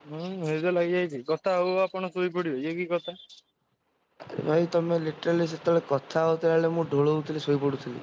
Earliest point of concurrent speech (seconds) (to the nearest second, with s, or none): none